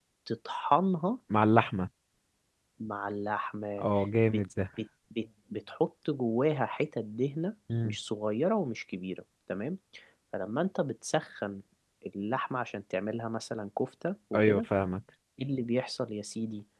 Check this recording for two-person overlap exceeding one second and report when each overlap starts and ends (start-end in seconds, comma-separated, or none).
none